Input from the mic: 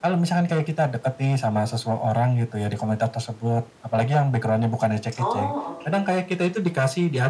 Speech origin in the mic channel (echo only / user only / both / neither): both